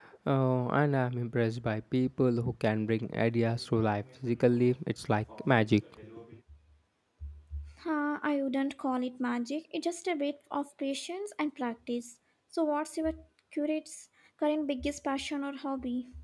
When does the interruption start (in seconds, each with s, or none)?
none